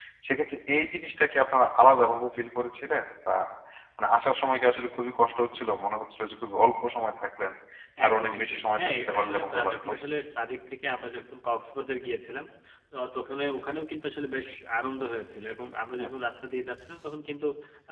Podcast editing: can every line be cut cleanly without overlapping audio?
No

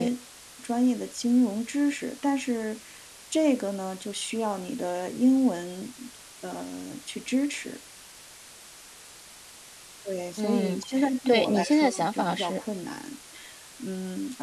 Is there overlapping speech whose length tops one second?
Yes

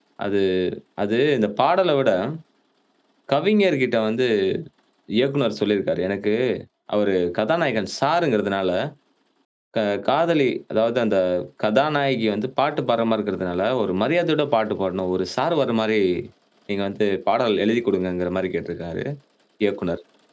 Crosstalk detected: No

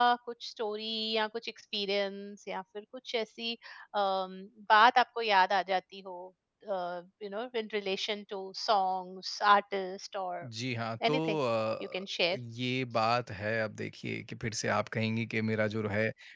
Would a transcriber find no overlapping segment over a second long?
Yes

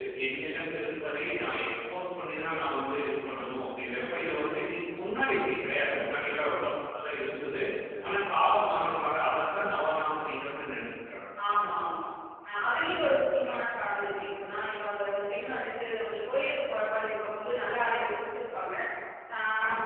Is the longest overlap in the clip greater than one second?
No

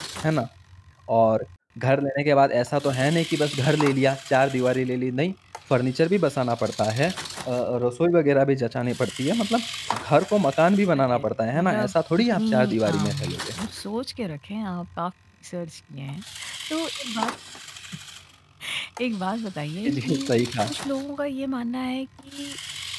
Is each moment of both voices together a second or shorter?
No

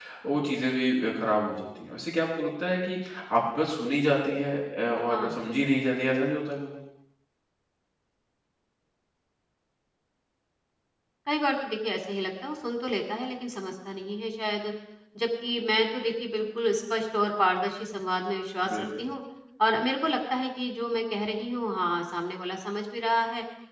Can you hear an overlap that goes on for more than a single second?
No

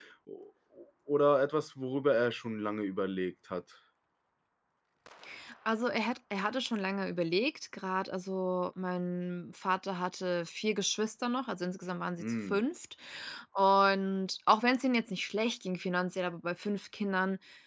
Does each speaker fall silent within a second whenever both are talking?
Yes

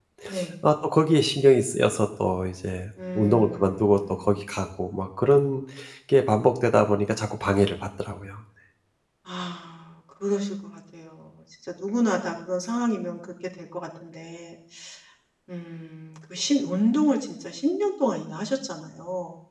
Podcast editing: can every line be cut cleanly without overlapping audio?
No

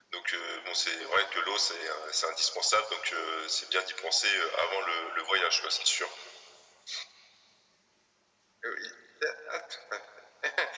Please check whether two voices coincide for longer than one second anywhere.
No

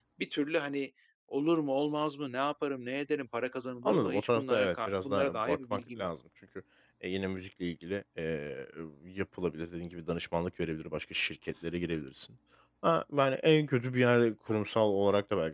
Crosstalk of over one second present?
Yes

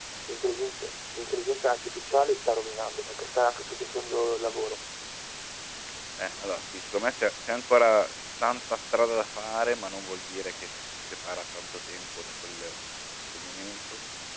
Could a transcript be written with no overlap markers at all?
Yes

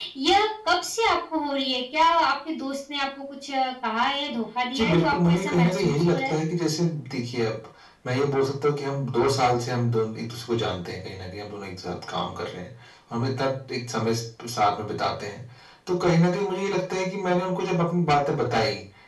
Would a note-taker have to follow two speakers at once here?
Yes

